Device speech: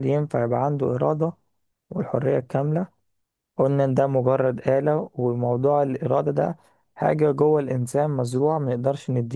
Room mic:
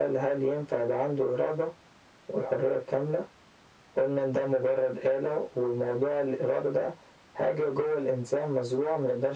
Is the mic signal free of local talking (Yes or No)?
Yes